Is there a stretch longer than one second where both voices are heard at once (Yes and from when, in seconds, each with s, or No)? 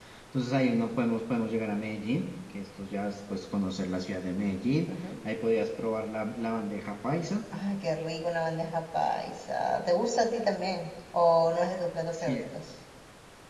No